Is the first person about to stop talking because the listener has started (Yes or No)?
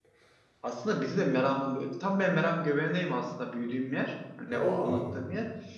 No